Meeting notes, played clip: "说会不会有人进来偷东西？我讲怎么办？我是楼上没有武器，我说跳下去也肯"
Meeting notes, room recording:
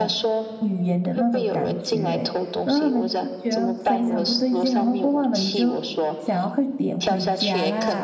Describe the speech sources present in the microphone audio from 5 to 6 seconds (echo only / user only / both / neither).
both